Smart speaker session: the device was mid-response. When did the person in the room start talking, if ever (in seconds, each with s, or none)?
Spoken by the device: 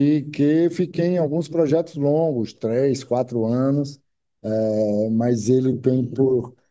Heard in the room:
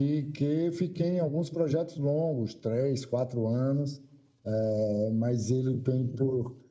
none